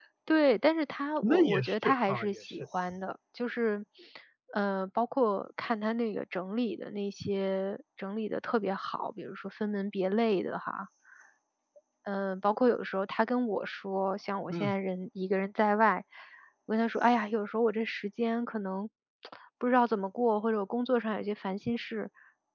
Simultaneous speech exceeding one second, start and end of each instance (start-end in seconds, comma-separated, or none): 1.2-2.6